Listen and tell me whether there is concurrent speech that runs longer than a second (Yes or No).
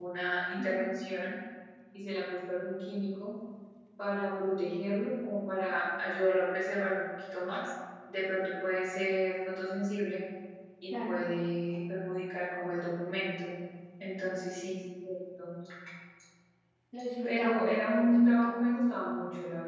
Yes